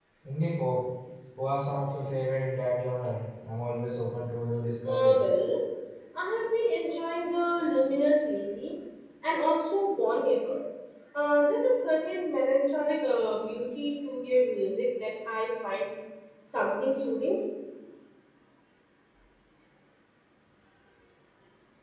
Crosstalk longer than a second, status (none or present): none